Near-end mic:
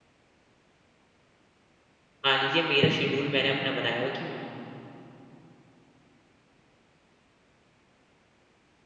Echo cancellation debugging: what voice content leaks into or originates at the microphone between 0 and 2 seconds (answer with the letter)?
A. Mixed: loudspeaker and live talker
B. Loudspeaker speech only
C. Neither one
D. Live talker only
C